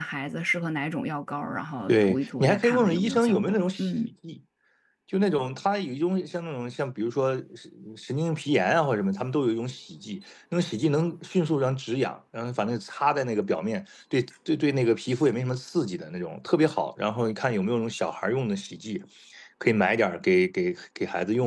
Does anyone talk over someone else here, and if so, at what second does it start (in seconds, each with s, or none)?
1.9 s